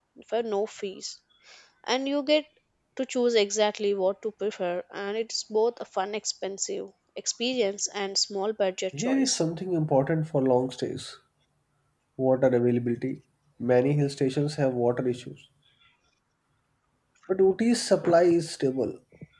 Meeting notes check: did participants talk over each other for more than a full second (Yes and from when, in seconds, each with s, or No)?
No